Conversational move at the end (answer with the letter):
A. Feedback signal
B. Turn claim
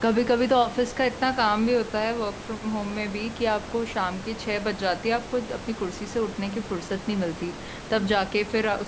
A